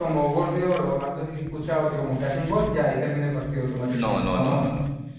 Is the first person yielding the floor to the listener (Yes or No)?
Yes